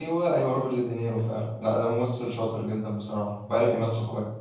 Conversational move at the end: taking over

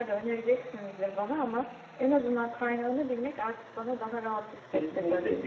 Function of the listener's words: taking over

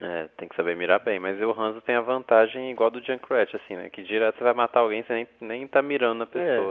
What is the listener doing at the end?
taking over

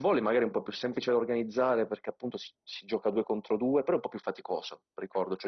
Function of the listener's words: listening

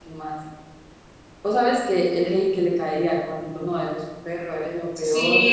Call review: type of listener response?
taking over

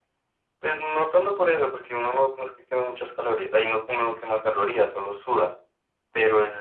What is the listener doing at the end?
listening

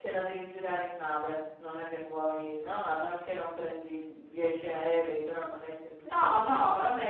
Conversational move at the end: taking over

